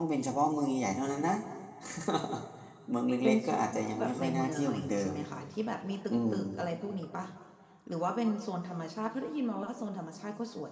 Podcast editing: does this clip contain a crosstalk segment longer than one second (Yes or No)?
Yes